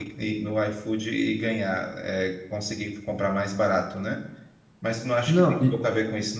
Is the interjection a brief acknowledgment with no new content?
Yes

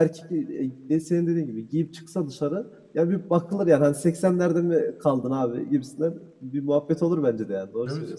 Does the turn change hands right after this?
Yes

